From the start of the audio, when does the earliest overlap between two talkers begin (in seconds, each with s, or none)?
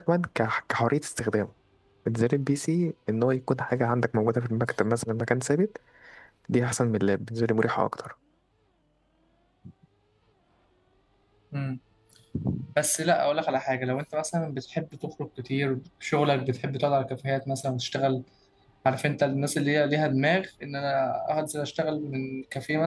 none